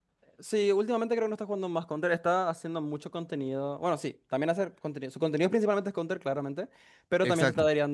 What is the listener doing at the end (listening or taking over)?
listening